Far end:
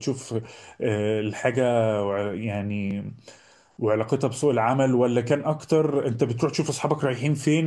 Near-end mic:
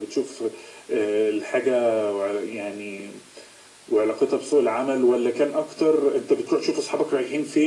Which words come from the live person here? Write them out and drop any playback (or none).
none